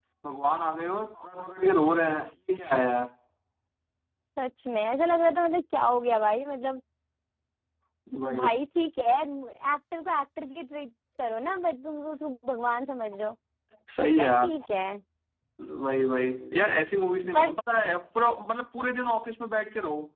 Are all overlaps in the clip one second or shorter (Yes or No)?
Yes